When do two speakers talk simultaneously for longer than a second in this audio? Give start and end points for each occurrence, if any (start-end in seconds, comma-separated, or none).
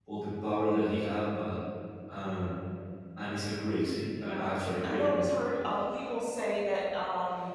4.1-5.3